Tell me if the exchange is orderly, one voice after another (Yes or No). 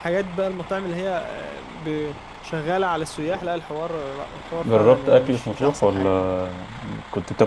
No